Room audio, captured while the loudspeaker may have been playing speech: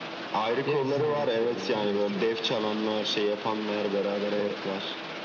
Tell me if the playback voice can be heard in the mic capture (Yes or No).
Yes